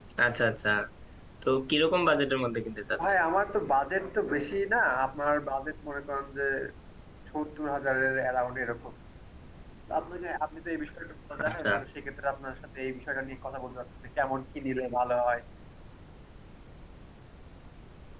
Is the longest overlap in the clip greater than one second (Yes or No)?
No